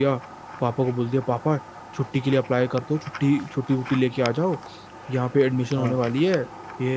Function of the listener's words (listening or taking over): listening